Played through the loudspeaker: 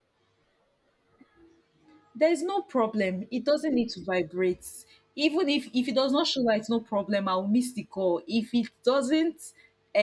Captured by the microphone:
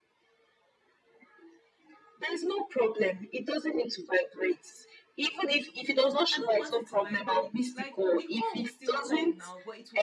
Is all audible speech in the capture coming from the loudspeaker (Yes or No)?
No